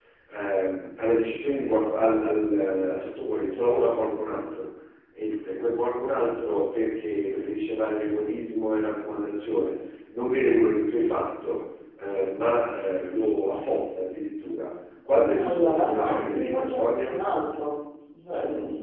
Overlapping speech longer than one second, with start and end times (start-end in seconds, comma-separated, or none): 15.4-17.2